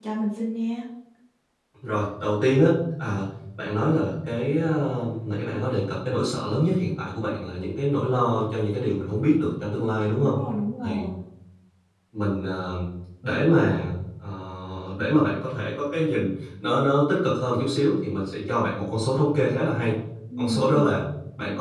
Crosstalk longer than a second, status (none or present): none